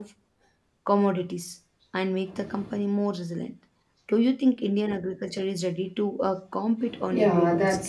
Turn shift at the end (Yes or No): Yes